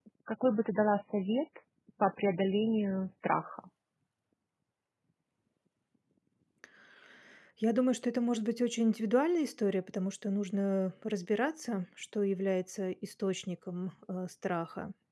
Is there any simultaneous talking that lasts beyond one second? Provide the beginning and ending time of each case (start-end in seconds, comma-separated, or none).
none